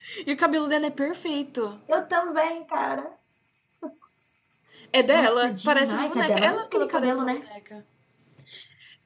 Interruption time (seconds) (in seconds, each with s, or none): 5.1 s